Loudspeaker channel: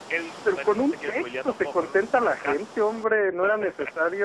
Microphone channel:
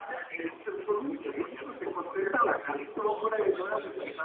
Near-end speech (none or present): present